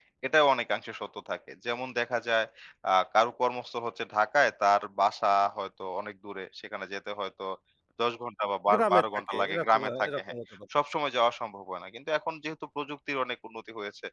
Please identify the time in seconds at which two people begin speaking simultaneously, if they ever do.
8.7 s

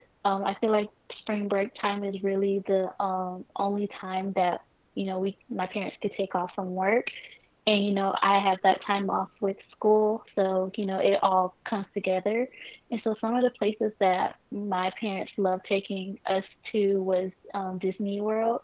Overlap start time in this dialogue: none

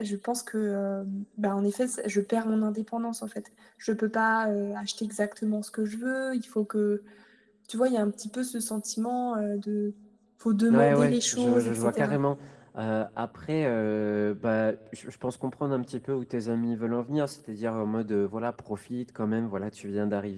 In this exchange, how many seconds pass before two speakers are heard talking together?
10.7 s

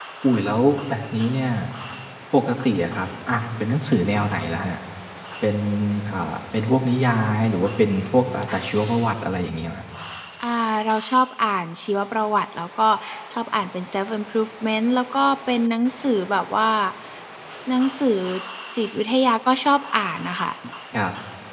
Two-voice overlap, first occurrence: none

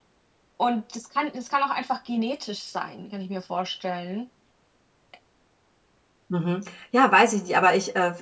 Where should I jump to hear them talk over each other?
none

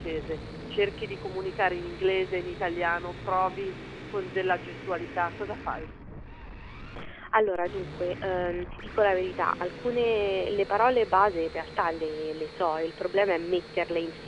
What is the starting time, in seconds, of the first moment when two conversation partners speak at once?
none

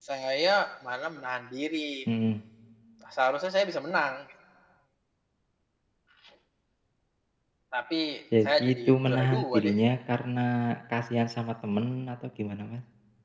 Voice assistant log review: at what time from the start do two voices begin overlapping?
8.4 s

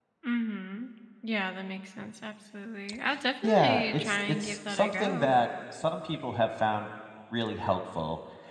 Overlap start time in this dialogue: 3.4 s

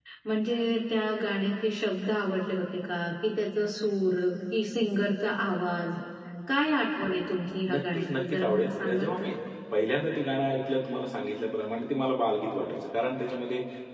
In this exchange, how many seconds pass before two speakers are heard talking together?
7.7 s

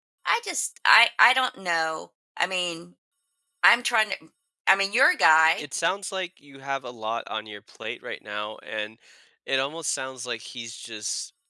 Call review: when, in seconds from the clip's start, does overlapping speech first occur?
none

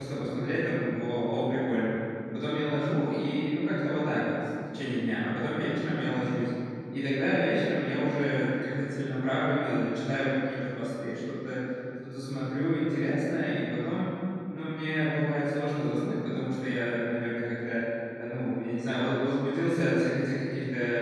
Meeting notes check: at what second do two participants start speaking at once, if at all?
none

